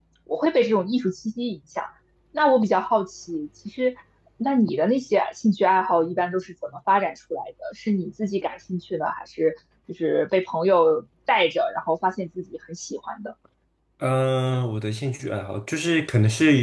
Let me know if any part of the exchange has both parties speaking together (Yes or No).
No